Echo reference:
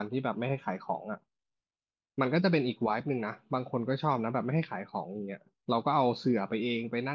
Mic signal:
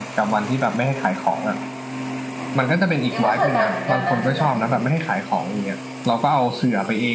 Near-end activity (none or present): present